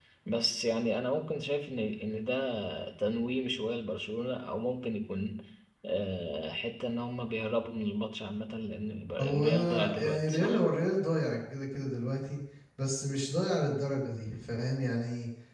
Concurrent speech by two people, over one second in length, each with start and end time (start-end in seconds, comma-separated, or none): 9.2-10.6